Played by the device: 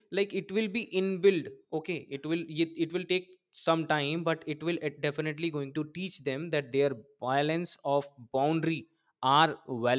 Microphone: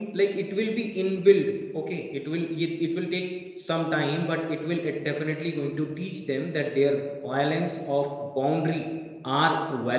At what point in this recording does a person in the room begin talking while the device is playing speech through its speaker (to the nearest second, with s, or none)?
none